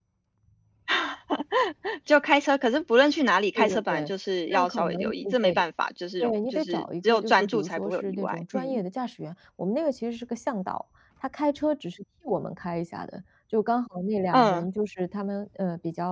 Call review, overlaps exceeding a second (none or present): present